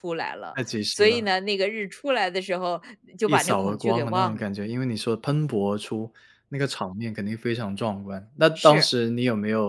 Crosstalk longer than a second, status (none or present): present